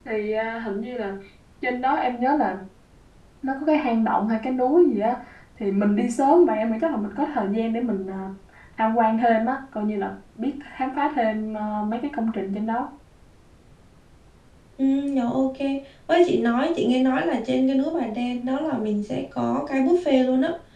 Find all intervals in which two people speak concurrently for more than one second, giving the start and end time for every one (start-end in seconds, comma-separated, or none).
none